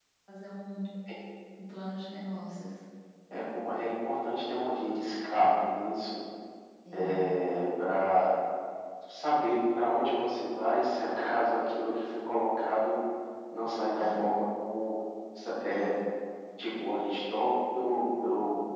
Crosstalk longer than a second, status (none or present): none